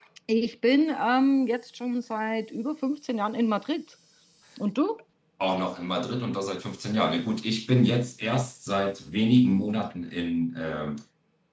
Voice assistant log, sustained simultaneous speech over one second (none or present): none